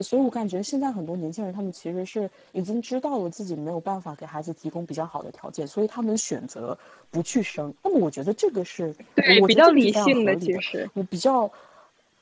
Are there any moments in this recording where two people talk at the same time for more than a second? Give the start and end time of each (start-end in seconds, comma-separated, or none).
9.2-10.8